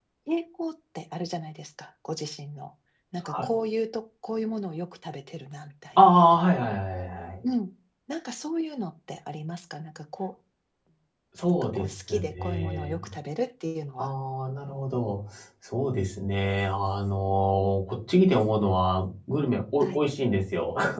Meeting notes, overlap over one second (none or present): present